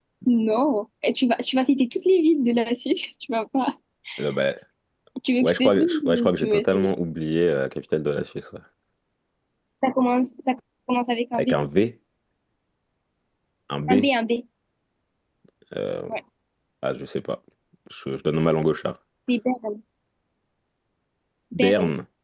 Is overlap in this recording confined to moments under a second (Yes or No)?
No